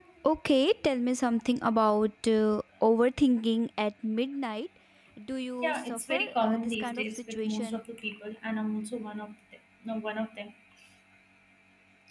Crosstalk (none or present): present